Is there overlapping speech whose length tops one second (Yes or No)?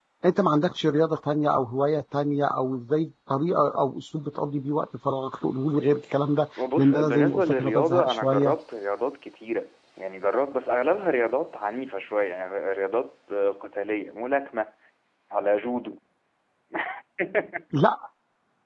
Yes